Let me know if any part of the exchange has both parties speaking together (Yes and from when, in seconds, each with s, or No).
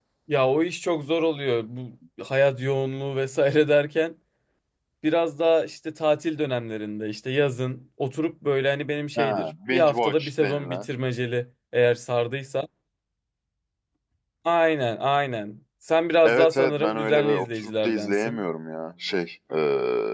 Yes, from 9.2 s